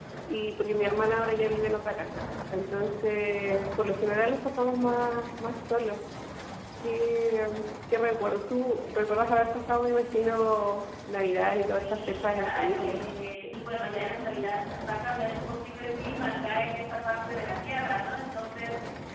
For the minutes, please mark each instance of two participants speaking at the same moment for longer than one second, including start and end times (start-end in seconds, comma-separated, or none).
11.5-13.0